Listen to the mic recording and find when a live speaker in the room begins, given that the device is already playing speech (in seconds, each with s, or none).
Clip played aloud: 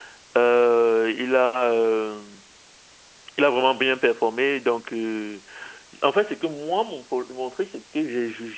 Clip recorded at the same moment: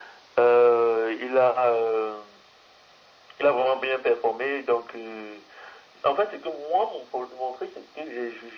none